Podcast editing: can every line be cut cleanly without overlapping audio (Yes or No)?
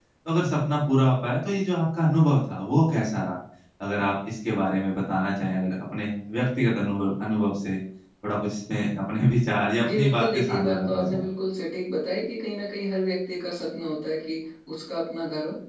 No